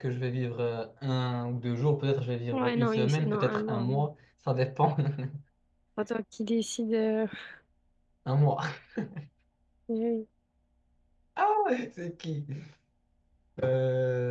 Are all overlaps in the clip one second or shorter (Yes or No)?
No